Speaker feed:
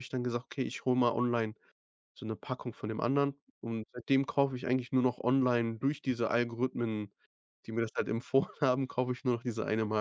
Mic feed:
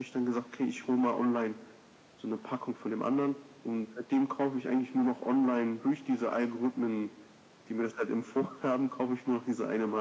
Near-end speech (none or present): none